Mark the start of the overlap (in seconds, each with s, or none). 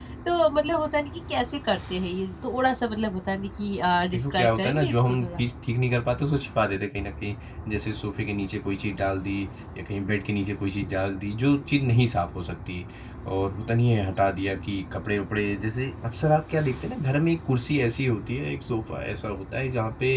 4.1 s